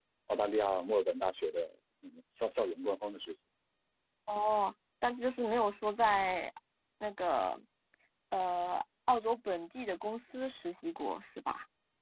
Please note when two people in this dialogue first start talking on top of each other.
none

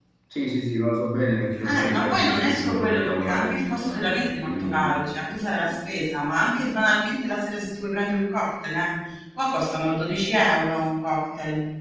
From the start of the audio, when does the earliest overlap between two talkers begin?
1.6 s

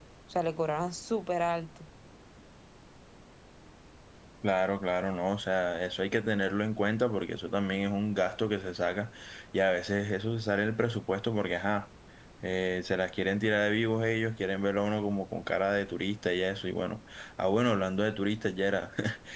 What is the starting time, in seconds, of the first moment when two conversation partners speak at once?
none

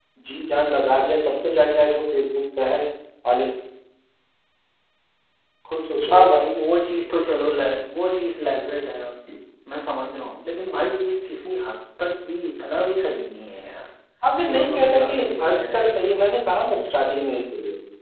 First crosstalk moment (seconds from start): 14.5 s

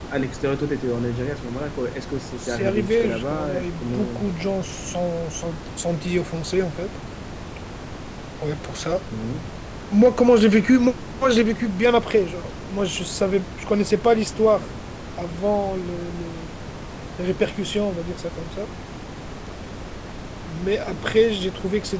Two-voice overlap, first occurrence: 2.4 s

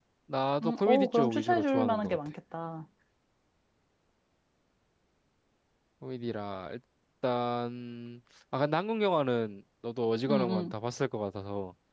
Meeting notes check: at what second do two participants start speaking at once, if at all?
0.6 s

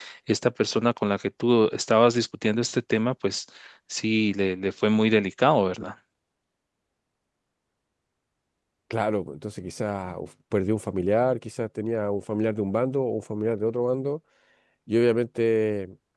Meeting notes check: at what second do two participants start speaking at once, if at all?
none

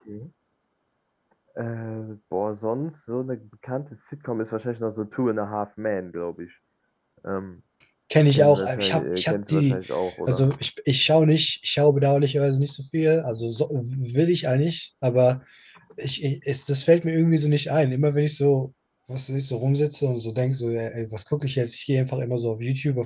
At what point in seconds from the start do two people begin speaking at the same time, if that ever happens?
8.3 s

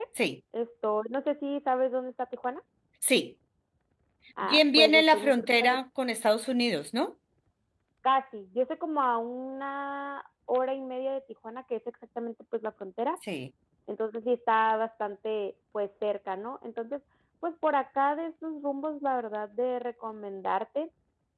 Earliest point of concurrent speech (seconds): 4.4 s

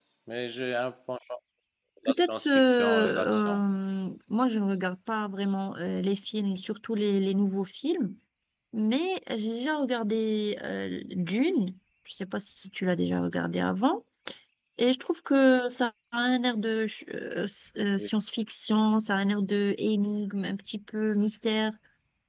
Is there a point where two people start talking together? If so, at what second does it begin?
2.0 s

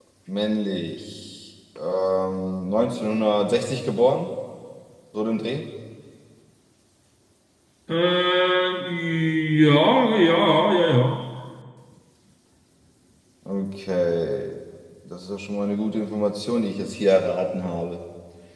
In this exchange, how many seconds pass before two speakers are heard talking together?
none

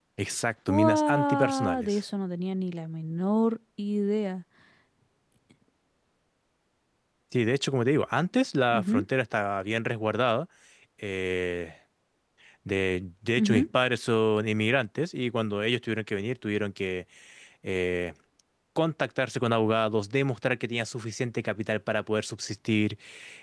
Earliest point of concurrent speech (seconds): 0.7 s

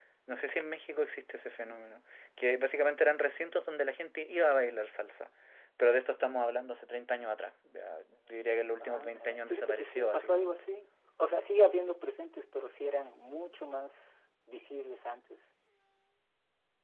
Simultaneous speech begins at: 8.8 s

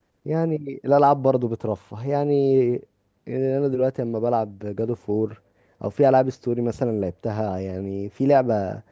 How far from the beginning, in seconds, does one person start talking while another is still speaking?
none

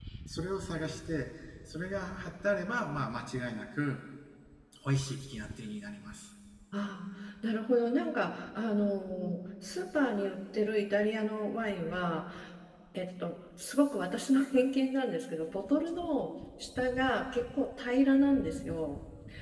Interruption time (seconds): none

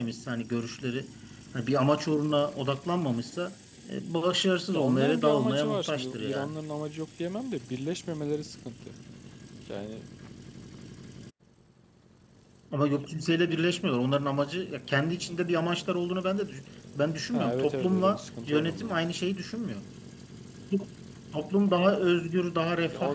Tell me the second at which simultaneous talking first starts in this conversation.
4.7 s

